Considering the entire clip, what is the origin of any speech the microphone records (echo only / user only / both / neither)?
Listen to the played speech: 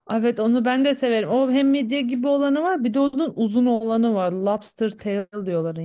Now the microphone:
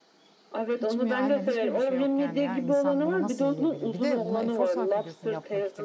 both